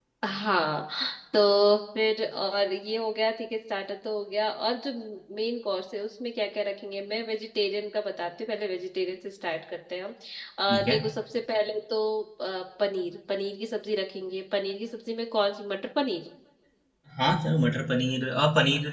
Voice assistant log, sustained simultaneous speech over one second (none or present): none